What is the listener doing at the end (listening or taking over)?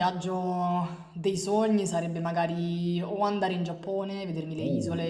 listening